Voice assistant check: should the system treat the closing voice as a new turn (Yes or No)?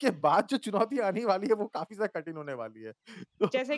No